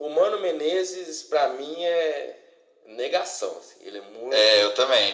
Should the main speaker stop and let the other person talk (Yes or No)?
Yes